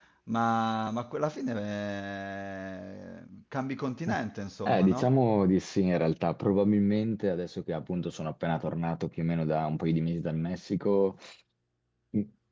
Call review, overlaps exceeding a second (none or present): none